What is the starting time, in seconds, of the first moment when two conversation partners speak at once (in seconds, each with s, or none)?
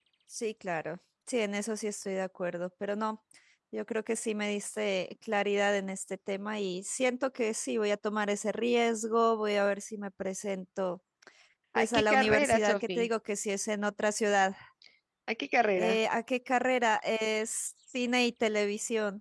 11.8 s